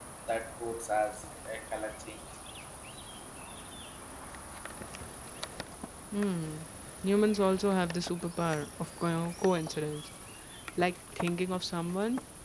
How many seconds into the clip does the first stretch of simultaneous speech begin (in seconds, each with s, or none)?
none